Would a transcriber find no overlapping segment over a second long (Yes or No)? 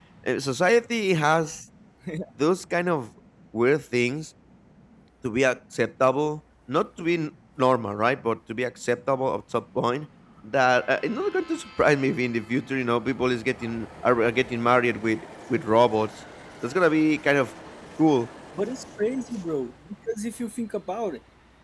Yes